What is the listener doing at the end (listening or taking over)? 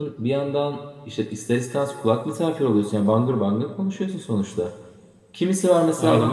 listening